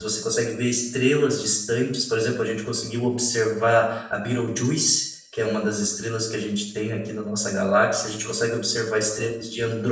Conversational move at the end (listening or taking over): listening